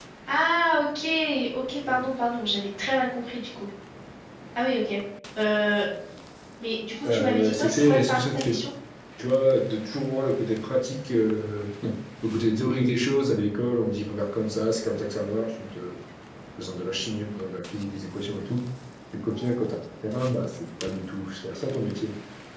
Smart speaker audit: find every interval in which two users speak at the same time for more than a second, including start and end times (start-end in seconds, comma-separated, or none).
7.0-8.6